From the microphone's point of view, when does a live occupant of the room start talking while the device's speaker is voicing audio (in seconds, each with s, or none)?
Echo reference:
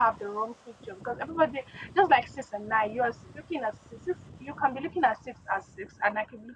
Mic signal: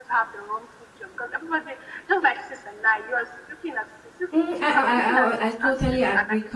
4.3 s